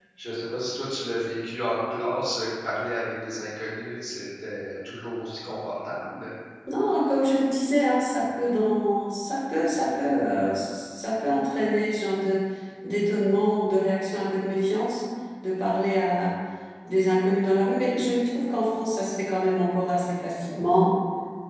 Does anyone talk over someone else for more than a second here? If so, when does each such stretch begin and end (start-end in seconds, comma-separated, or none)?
none